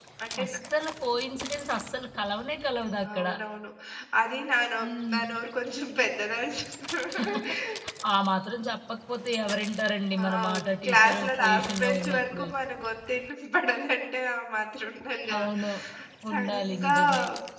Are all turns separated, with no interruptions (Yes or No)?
No